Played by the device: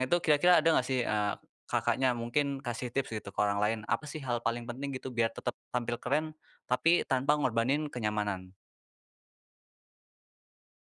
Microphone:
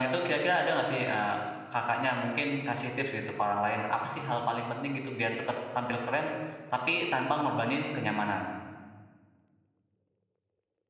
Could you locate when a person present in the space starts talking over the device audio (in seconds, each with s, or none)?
none